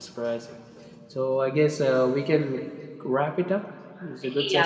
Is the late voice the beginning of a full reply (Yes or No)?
Yes